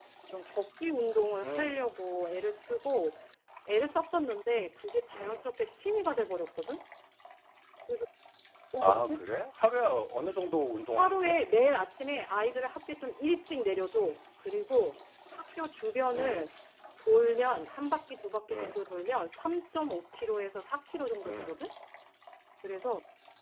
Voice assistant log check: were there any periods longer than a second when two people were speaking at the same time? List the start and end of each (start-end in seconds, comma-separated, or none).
none